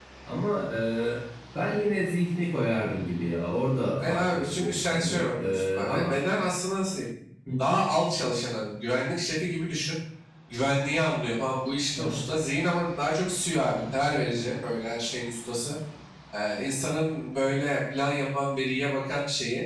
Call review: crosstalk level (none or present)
present